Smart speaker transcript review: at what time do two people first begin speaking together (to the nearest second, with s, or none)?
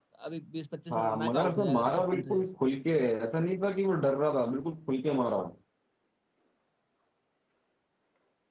1 s